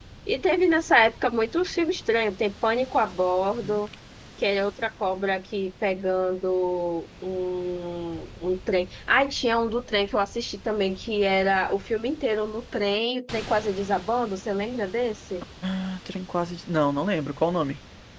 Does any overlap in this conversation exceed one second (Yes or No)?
No